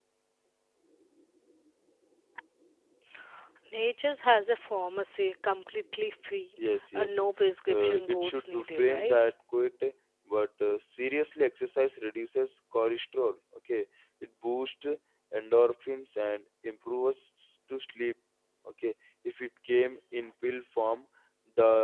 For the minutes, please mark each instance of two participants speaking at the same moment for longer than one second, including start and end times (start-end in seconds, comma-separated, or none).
7.7-9.2